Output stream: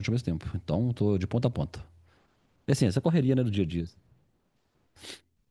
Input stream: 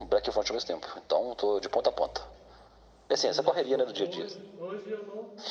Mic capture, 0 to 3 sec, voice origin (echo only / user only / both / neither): echo only